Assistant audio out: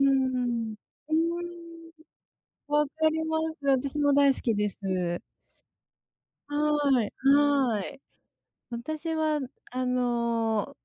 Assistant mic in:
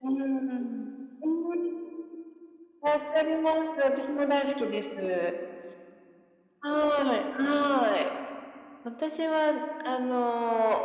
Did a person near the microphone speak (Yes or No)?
No